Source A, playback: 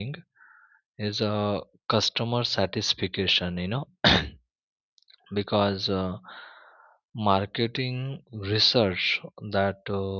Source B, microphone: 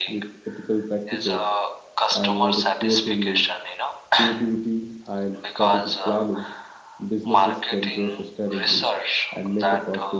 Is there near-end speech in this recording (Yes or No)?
Yes